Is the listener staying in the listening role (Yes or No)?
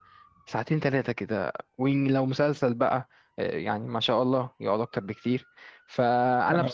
Yes